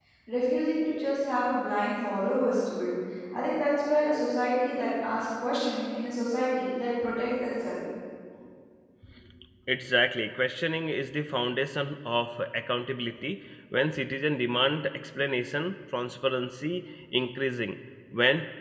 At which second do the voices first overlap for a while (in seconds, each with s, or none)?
none